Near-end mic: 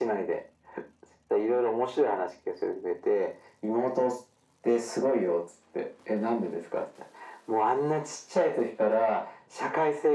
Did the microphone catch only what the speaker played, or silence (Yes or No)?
Yes